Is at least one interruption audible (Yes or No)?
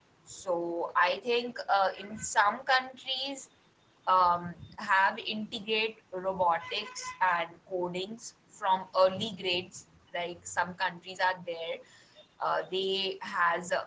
No